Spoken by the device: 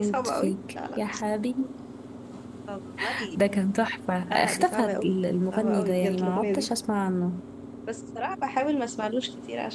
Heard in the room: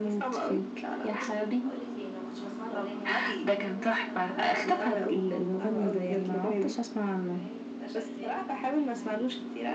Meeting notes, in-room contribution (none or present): present